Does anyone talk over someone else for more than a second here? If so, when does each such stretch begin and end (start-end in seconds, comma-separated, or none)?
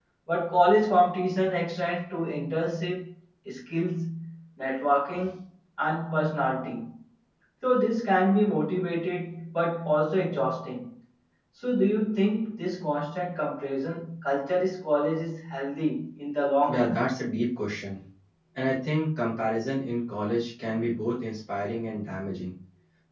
none